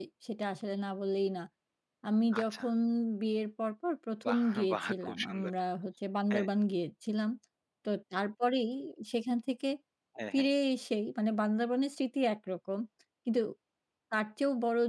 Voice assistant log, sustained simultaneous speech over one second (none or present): present